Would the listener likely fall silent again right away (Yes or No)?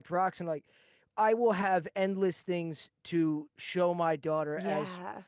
Yes